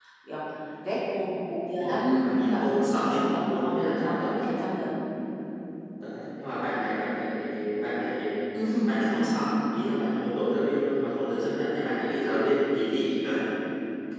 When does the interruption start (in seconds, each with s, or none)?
1.8 s